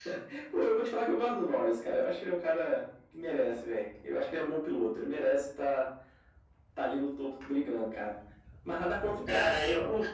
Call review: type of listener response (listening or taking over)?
taking over